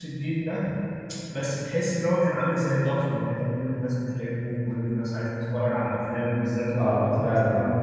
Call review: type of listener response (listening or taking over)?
taking over